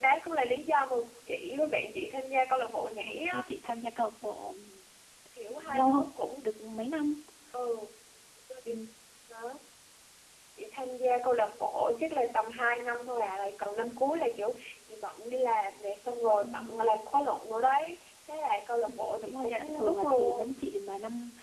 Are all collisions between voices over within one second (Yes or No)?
No